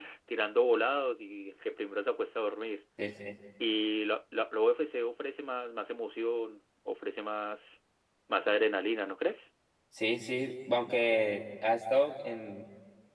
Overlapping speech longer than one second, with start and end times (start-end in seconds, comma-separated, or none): none